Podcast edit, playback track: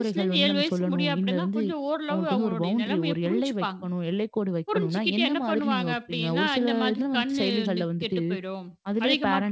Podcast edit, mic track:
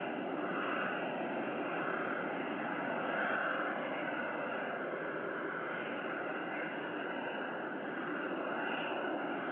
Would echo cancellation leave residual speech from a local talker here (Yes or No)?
No